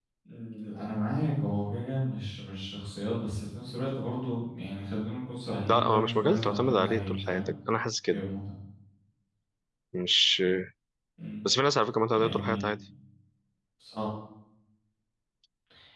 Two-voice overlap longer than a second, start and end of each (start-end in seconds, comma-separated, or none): 5.7-7.5